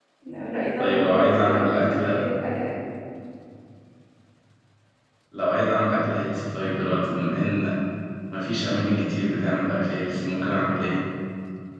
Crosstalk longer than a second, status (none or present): present